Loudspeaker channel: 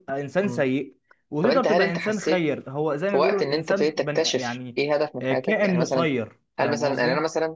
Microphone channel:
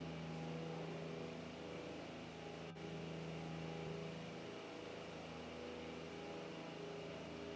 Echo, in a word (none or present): none